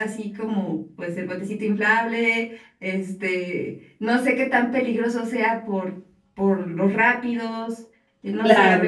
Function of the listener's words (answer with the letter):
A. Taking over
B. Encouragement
A